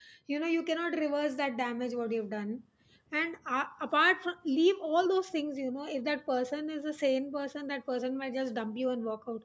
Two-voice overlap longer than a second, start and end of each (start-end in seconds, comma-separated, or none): none